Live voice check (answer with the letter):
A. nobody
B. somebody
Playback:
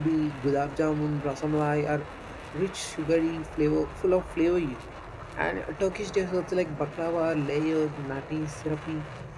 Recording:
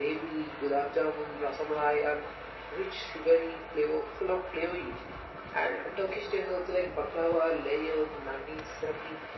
A